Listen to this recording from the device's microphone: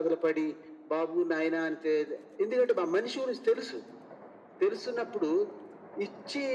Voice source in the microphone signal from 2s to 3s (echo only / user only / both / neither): echo only